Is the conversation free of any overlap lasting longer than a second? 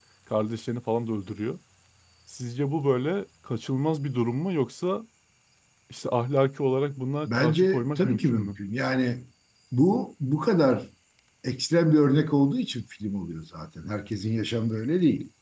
No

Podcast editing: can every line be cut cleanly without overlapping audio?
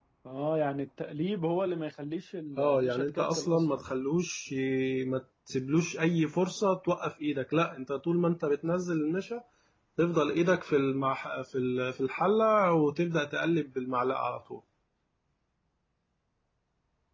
No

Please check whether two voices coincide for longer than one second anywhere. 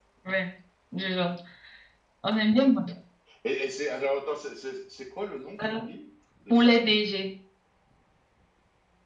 No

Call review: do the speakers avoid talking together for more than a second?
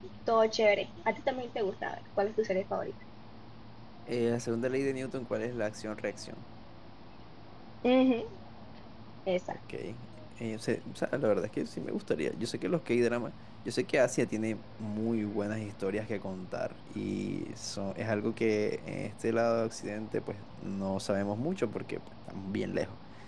Yes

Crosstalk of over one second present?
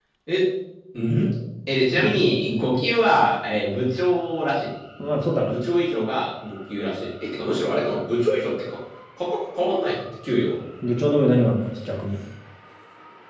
No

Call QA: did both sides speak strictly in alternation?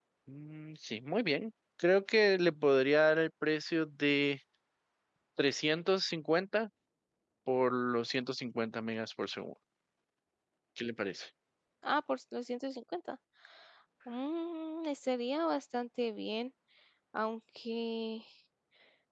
Yes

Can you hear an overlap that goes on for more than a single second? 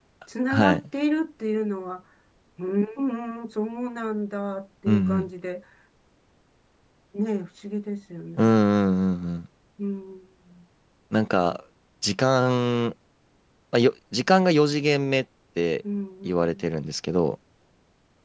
No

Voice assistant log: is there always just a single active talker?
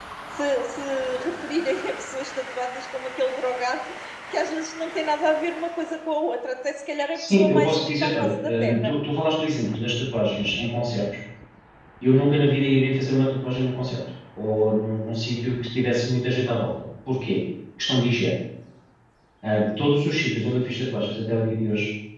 No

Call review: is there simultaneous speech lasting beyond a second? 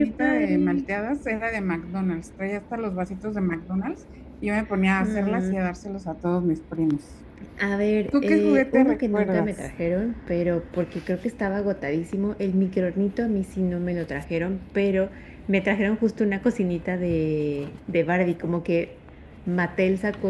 Yes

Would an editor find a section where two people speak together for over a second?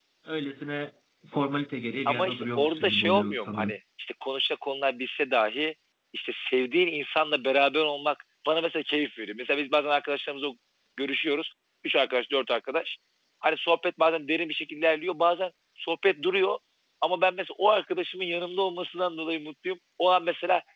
Yes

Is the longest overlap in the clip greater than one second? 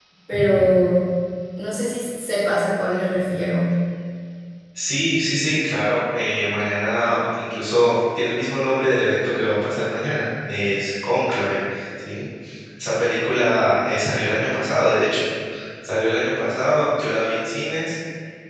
No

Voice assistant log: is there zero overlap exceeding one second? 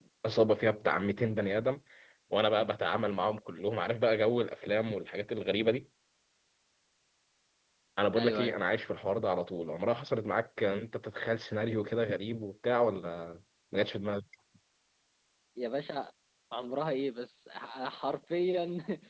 Yes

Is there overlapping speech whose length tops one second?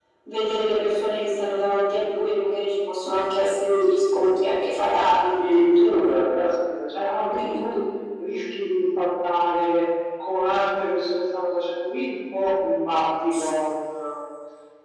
No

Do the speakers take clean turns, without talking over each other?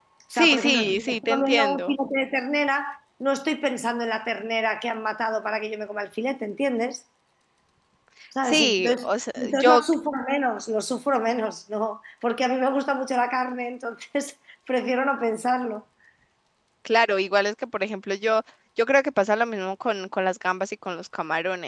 No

